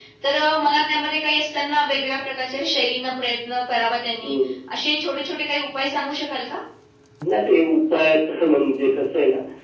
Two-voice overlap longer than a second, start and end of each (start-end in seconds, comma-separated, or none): none